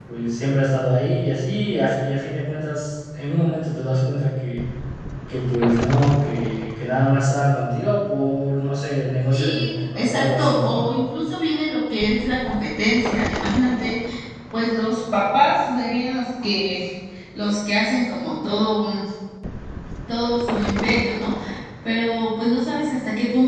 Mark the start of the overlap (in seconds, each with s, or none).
9.3 s